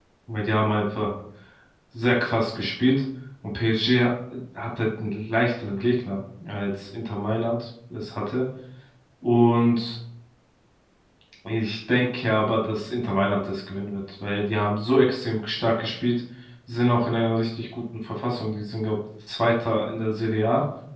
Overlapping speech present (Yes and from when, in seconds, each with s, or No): No